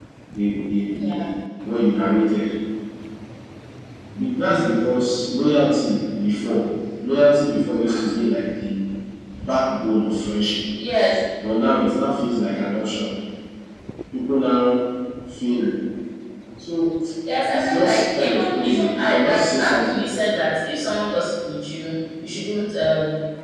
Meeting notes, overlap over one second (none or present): present